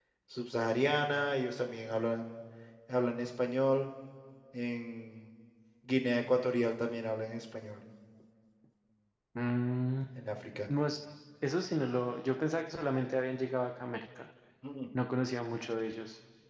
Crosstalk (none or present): none